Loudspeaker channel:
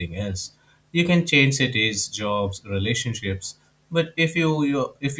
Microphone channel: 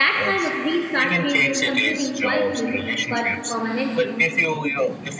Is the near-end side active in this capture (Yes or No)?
Yes